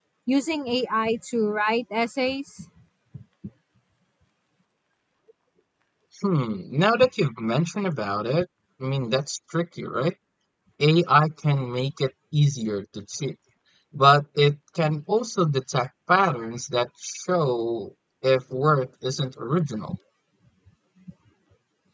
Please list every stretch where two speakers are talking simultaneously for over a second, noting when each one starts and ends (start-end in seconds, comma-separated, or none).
none